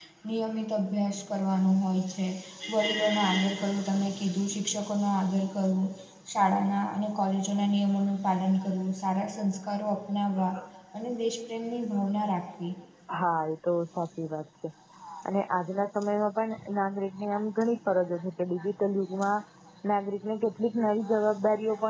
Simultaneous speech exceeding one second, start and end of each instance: none

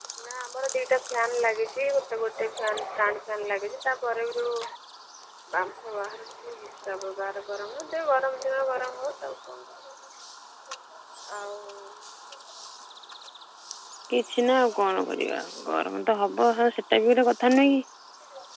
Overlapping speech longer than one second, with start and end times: none

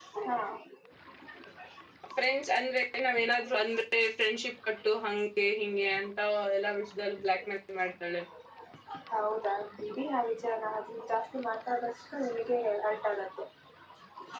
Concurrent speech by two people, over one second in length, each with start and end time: none

